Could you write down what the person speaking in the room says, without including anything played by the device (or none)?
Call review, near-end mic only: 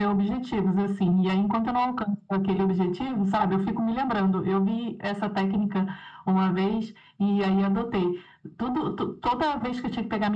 none